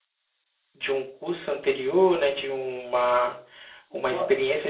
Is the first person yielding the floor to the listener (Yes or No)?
No